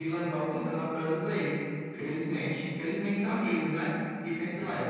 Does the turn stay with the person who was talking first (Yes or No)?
Yes